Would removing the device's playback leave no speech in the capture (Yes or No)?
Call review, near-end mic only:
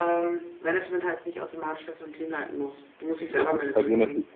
No